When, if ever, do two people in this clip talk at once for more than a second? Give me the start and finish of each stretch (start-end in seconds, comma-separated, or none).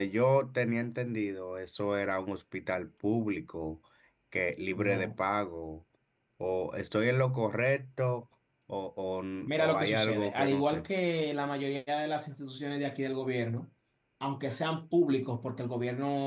9.5-10.9